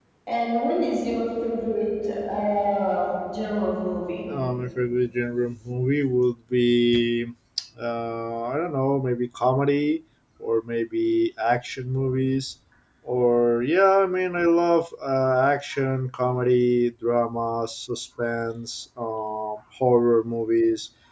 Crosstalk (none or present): none